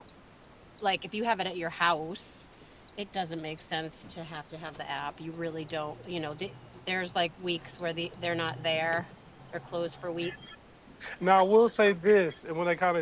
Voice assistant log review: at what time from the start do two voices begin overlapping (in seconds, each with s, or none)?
none